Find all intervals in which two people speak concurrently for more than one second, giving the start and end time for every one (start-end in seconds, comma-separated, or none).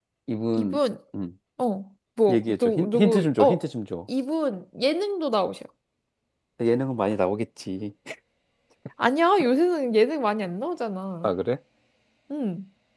2.3-3.6